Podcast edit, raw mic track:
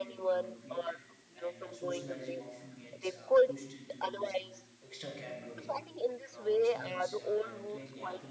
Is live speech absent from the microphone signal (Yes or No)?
No